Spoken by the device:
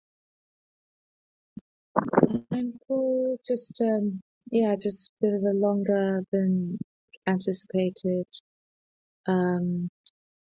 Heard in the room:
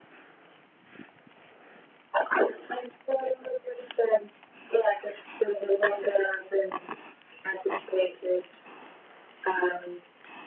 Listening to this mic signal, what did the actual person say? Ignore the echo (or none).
none